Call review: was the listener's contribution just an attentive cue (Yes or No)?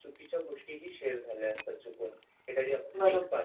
Yes